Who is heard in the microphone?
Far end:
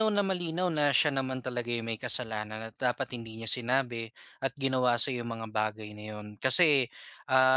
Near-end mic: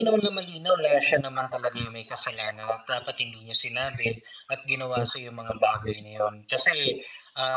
echo only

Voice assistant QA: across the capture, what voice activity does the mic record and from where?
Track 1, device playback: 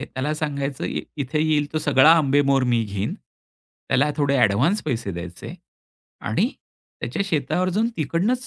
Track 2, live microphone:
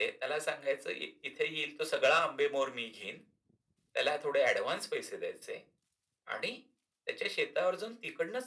echo only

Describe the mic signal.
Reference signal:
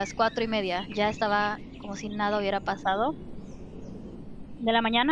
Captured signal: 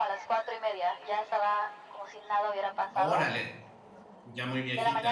both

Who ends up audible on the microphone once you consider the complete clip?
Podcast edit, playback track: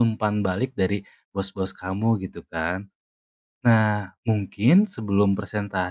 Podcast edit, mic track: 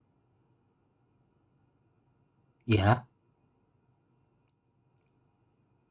user only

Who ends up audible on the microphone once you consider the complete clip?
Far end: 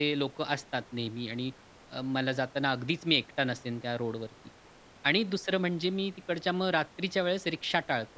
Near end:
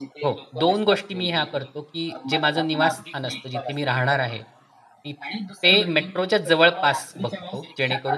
both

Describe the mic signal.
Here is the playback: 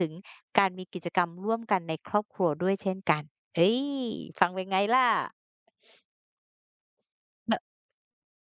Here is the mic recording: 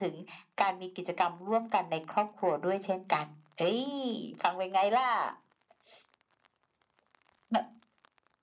echo only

